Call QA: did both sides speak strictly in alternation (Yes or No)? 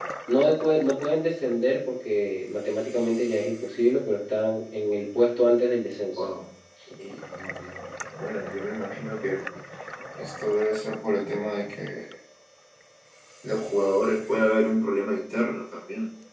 Yes